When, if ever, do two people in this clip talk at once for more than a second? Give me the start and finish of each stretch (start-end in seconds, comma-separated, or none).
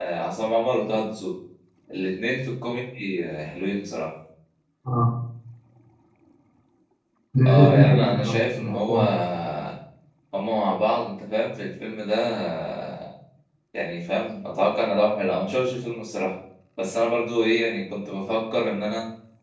7.5-9.0